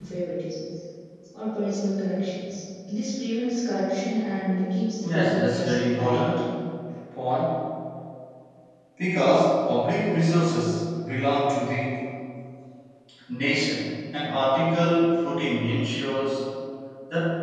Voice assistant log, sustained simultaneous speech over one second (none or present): present